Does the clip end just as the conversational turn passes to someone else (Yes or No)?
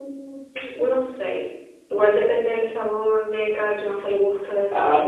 Yes